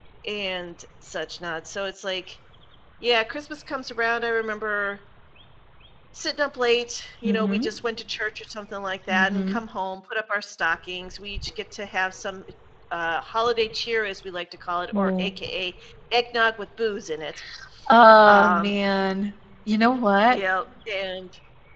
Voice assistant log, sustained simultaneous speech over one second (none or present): none